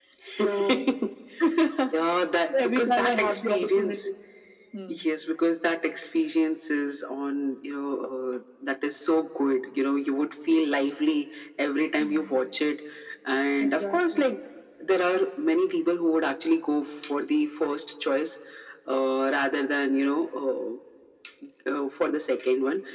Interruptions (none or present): present